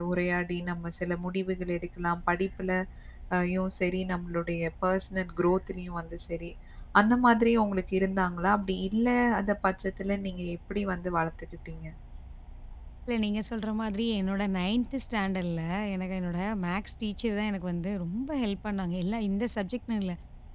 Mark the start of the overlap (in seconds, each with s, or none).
none